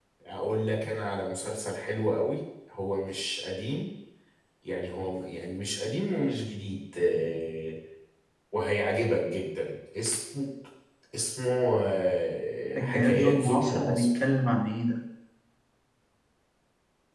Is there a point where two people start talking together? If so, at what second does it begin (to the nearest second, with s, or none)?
13 s